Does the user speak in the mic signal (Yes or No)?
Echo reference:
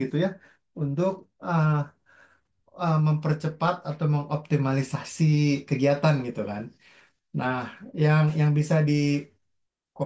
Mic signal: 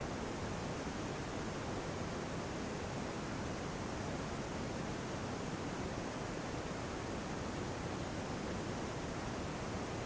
No